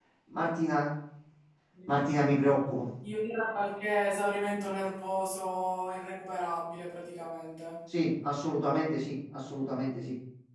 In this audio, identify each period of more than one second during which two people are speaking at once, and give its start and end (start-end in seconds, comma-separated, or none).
none